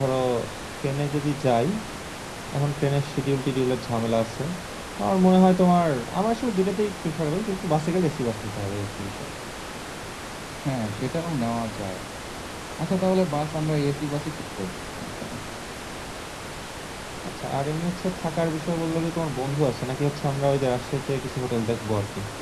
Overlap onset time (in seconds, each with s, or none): none